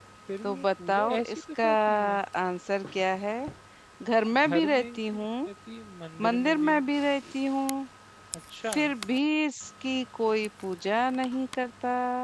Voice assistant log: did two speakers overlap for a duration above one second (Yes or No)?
Yes